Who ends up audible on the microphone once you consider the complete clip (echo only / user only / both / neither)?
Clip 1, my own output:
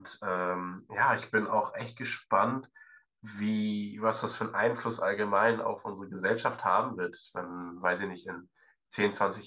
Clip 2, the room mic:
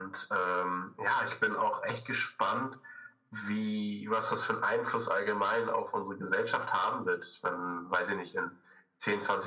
echo only